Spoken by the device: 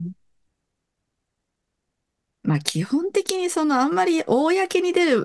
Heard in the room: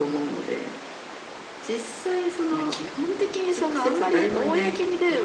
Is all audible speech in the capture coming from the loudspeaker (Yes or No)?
No